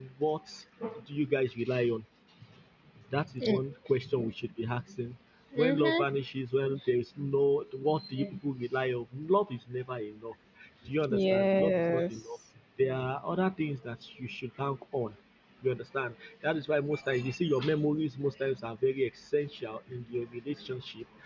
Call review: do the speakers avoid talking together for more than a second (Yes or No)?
No